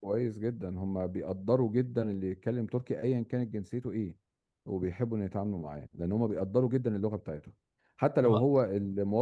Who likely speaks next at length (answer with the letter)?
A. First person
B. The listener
A